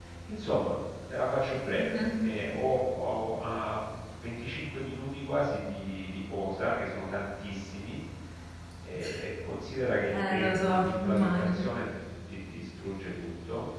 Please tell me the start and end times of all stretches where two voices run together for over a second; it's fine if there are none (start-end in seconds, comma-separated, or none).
10.1-11.6